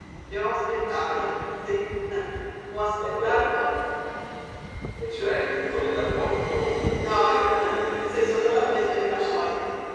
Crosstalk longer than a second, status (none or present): present